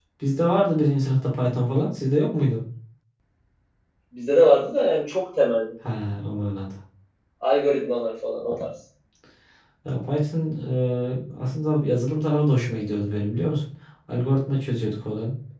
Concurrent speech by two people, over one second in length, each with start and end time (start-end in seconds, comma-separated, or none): none